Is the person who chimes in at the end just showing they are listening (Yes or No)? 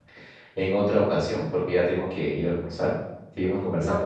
No